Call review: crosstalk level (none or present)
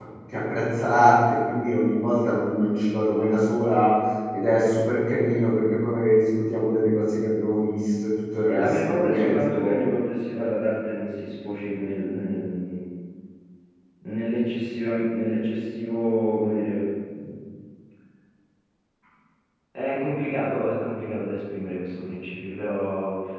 present